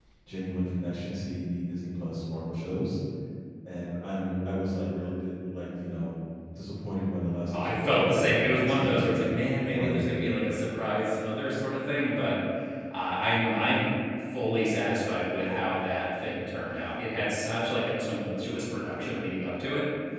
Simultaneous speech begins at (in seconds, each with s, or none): 7.5 s